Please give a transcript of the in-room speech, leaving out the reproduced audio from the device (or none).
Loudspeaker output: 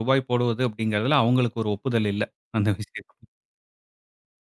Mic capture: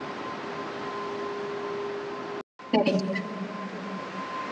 சரிங்க.